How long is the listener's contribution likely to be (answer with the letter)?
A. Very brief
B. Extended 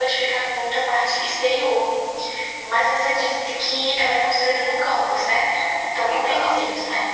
B